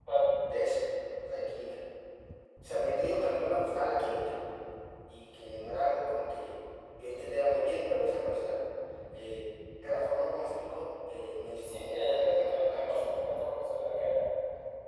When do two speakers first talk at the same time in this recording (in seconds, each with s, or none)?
11.6 s